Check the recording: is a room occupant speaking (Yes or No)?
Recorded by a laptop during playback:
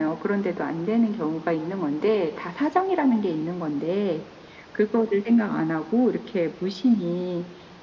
No